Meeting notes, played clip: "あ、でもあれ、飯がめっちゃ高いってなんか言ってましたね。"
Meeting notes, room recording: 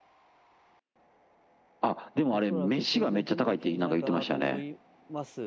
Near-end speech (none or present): present